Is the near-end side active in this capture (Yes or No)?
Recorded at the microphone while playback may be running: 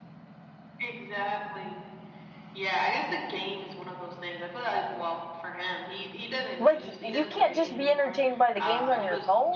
Yes